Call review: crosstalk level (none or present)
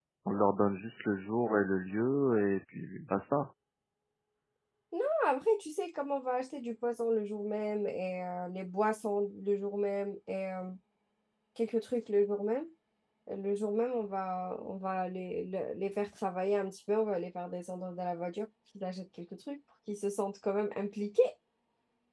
none